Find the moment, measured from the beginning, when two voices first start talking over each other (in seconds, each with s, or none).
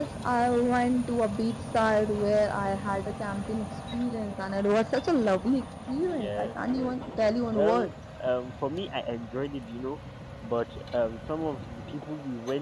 6.0 s